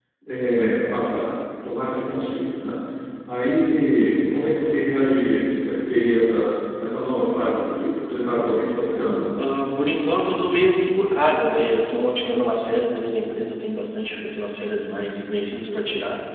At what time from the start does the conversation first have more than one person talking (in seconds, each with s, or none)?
none